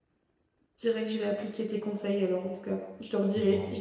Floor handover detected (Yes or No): No